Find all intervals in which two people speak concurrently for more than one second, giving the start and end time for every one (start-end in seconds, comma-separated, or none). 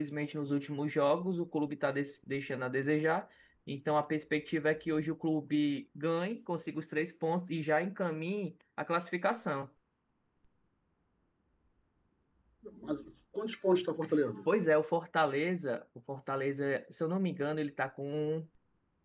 none